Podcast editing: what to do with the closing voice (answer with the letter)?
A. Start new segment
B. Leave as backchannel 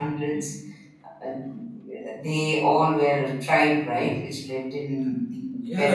A